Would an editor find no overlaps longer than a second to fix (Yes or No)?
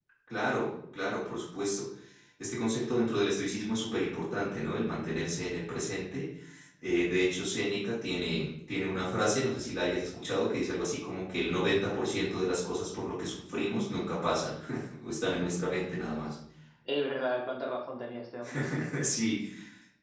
Yes